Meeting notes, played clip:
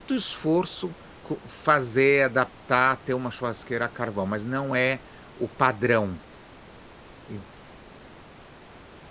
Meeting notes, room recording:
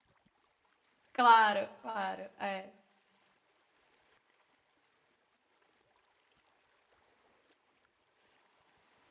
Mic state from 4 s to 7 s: neither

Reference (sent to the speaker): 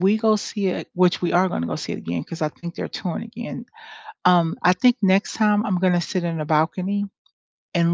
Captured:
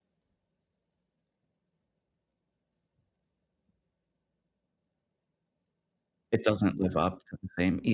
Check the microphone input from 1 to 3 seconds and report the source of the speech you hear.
neither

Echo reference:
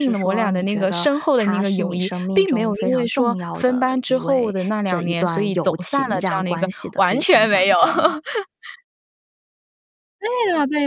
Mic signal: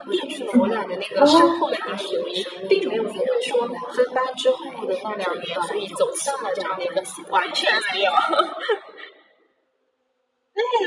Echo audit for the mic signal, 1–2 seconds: both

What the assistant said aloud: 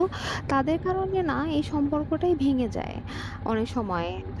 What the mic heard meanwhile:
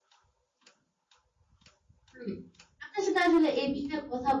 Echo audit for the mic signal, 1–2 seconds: neither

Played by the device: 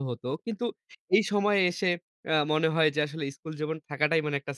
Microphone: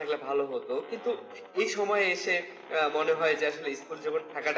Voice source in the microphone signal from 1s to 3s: echo only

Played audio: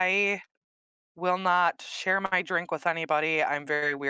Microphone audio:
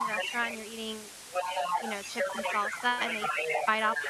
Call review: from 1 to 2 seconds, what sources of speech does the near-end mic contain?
both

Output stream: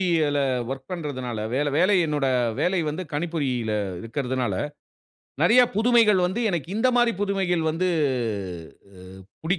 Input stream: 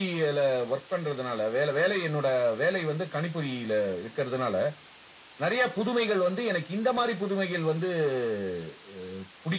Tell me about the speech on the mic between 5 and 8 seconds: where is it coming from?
echo only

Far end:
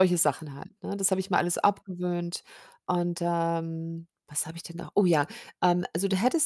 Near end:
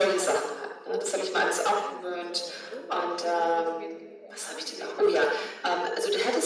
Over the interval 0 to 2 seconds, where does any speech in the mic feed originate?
both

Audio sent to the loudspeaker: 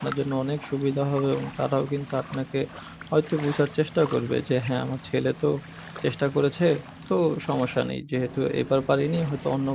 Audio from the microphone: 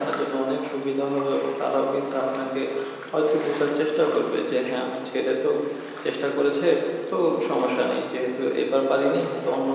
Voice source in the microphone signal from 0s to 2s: echo only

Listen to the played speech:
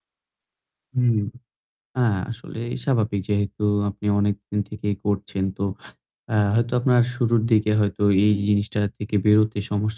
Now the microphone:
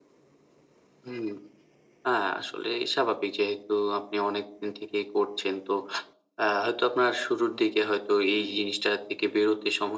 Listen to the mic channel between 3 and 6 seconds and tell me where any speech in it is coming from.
echo only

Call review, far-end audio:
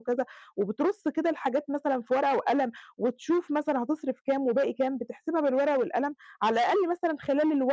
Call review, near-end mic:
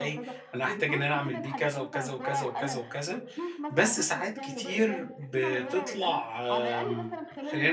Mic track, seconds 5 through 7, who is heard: both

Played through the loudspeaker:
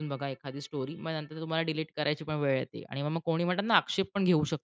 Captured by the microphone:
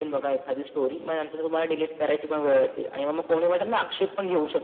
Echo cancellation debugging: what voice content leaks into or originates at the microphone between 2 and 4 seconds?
echo only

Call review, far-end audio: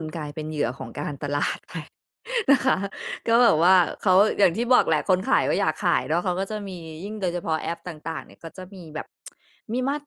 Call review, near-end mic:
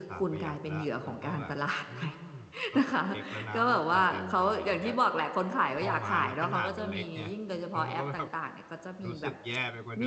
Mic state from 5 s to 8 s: both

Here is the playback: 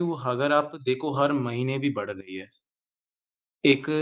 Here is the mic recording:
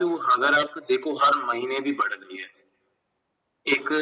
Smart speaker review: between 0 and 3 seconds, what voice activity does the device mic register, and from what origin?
echo only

